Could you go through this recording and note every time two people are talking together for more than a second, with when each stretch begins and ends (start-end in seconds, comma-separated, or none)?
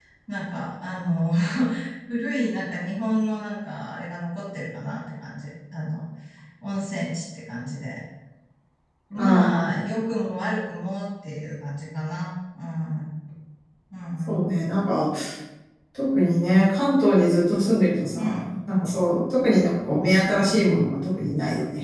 none